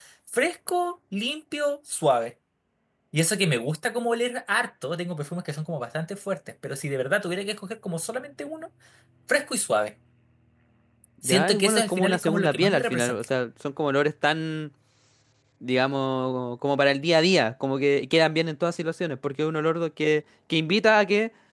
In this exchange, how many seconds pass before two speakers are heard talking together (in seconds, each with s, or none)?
11.2 s